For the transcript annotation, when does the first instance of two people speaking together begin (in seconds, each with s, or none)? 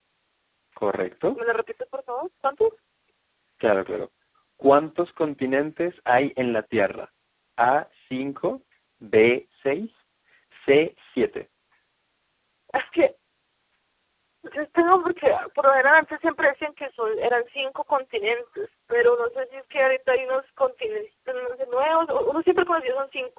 none